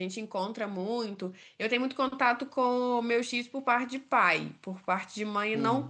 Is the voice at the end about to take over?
No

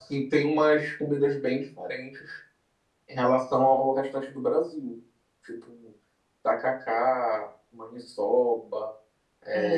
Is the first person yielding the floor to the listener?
Yes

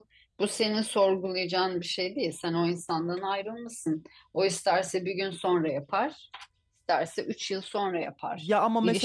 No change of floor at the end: No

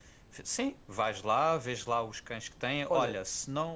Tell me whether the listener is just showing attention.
Yes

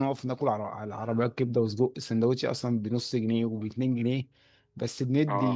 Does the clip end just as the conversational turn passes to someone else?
No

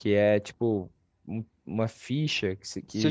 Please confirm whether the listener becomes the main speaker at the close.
Yes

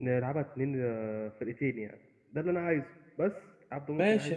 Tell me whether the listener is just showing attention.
No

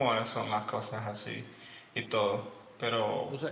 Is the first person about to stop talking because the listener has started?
Yes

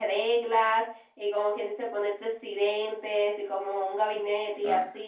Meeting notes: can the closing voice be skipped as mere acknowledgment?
Yes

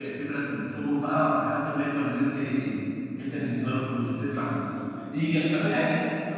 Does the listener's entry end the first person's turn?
No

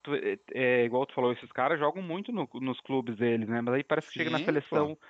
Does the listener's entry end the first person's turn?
No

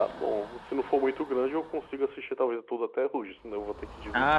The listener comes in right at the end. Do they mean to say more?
Yes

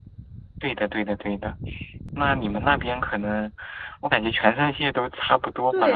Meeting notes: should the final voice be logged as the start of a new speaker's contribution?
Yes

